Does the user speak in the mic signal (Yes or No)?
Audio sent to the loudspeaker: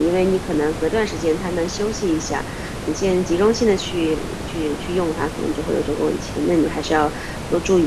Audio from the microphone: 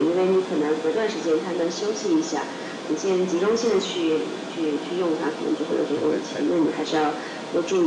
Yes